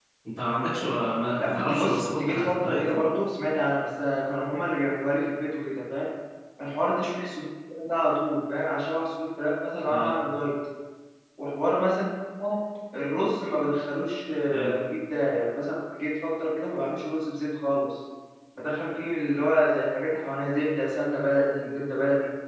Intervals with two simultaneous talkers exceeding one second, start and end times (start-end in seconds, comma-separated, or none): 1.4-3.0